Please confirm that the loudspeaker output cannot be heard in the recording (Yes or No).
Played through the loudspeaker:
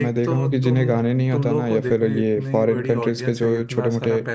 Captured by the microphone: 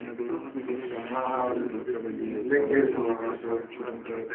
No